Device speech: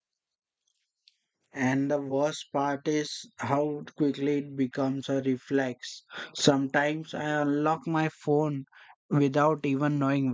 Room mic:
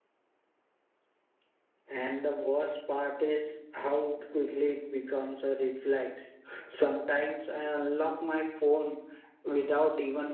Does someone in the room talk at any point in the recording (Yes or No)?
No